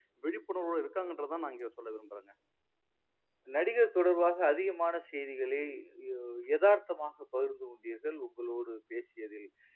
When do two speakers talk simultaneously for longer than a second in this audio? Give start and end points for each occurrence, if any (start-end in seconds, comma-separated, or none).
none